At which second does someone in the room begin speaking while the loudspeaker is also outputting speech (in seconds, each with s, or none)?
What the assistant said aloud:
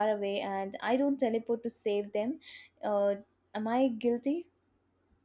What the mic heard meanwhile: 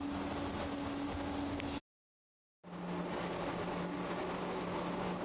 none